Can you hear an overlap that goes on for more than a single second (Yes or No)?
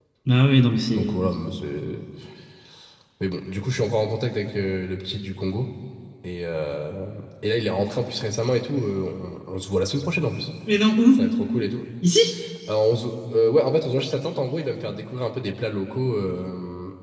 No